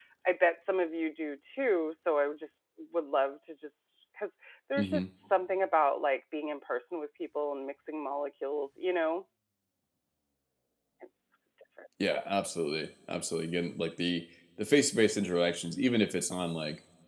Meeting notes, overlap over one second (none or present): none